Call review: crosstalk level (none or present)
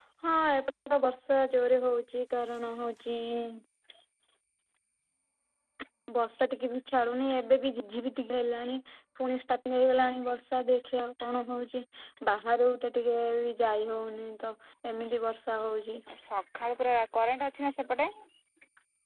none